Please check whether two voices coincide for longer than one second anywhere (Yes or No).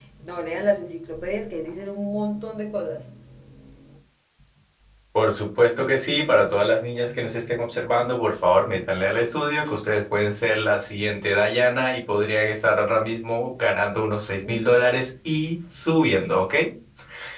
No